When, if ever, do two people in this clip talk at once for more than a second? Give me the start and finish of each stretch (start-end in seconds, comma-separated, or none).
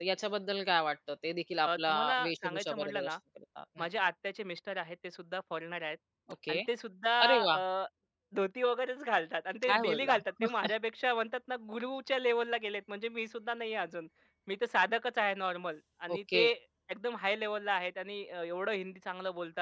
1.6-3.1